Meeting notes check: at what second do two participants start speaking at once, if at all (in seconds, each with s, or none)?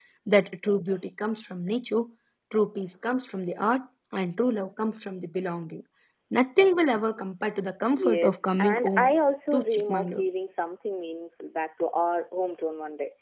7.9 s